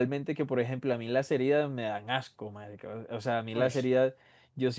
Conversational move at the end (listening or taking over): listening